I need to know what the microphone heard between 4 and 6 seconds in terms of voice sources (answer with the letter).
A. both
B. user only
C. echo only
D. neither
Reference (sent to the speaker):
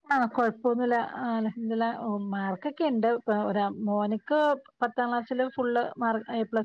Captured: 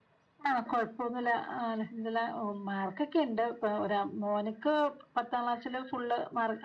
C